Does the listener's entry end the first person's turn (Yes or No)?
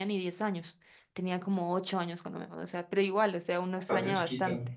No